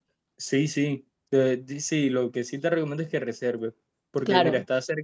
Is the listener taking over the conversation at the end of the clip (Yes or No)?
No